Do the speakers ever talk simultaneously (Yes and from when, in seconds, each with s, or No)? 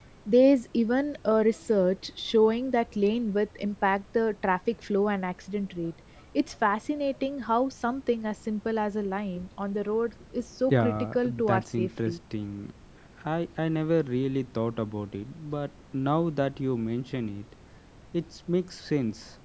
Yes, from 10.7 s